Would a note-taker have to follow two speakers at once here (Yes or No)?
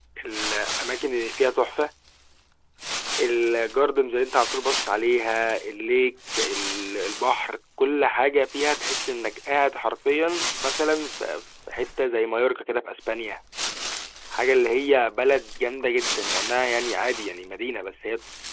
No